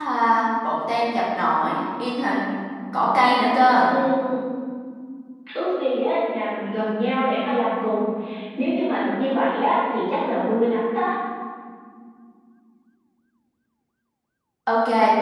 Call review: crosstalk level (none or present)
none